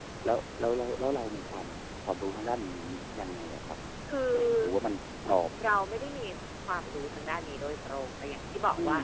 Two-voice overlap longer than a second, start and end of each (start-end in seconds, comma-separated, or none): none